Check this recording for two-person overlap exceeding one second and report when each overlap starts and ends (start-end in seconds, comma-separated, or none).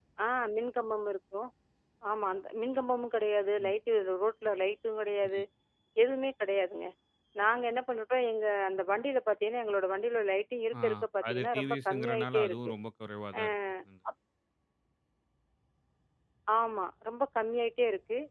11.3-12.7